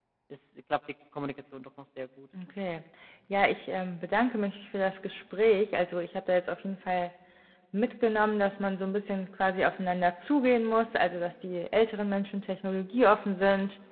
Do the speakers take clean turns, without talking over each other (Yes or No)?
Yes